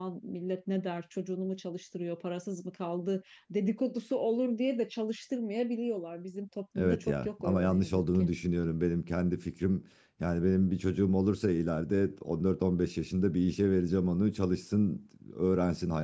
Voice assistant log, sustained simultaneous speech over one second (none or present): present